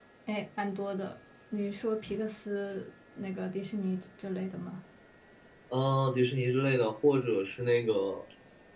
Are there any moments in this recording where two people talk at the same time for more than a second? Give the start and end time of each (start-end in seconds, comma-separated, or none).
none